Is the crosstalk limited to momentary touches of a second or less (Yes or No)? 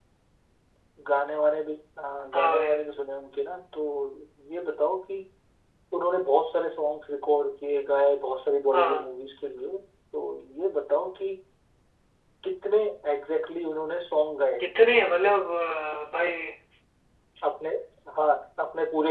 Yes